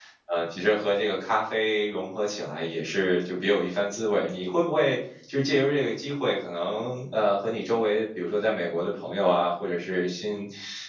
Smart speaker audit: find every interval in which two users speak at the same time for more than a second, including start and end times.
none

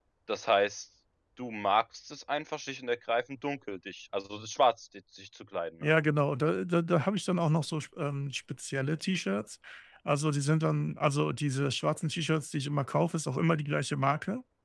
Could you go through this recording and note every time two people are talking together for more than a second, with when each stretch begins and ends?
none

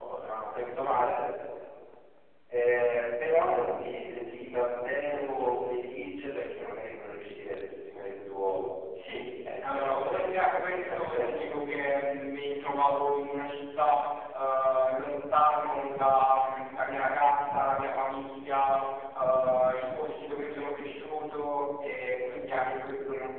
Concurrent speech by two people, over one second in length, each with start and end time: 9.6-11.4

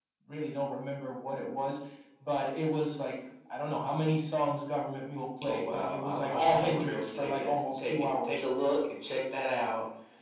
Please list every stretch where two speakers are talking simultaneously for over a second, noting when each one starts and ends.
5.4-8.4

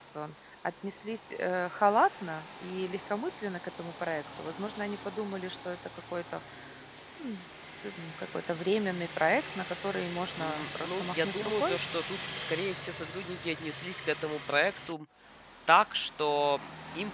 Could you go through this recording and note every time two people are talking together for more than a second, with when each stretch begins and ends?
10.4-11.8

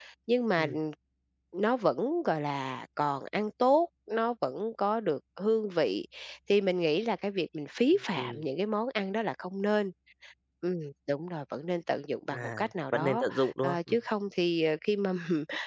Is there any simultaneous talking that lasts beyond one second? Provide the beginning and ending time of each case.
12.3-13.8

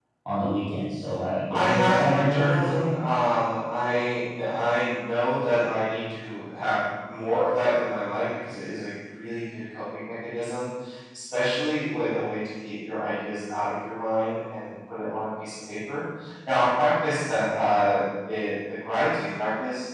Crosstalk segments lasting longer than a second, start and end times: 1.5-2.9

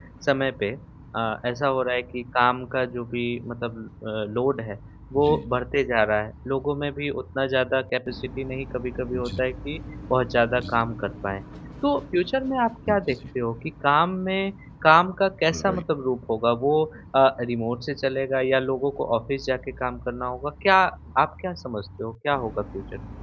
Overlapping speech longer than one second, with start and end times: none

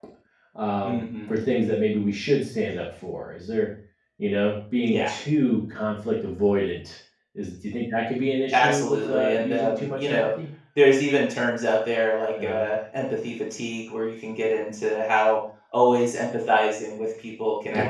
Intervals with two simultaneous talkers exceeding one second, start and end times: 8.5-10.3

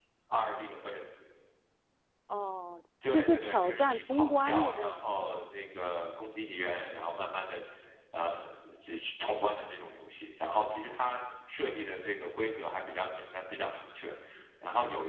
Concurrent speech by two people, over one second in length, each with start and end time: 3.1-5.4

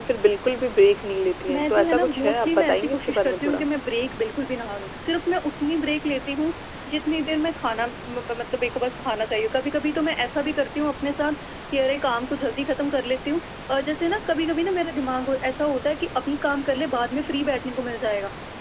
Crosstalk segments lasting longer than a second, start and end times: 1.5-3.6

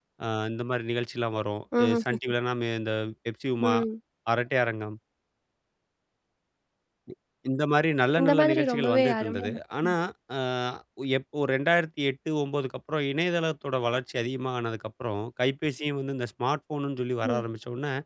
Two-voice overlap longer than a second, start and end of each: 8.2-9.5

